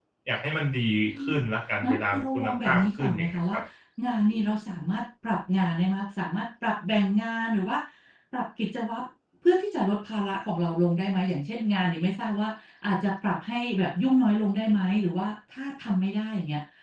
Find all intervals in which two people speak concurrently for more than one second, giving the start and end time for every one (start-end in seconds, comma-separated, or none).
1.8-3.6